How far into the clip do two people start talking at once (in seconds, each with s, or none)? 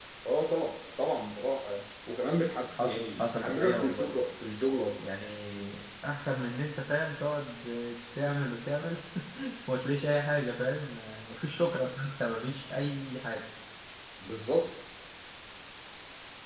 2.8 s